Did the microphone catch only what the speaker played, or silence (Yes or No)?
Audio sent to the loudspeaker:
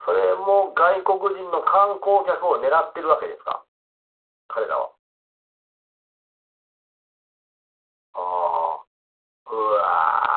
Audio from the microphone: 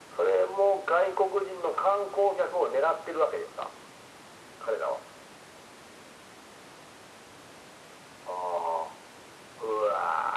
Yes